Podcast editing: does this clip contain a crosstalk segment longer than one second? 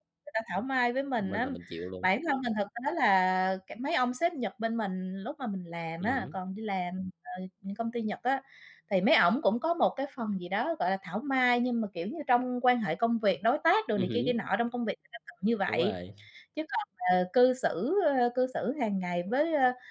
No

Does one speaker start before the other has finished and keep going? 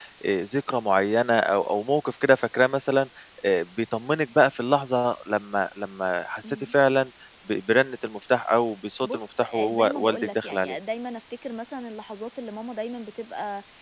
Yes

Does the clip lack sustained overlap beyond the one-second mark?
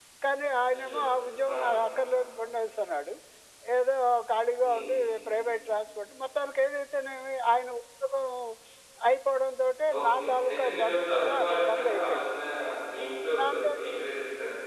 No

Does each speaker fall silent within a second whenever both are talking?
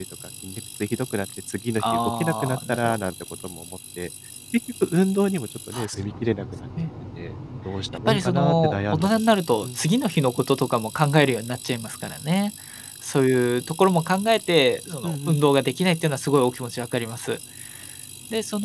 No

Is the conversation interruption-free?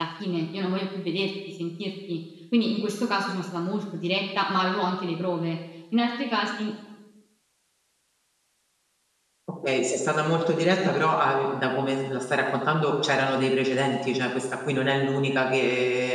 Yes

